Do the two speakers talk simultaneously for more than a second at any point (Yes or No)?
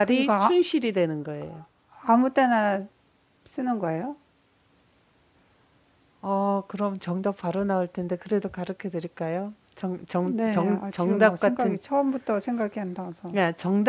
Yes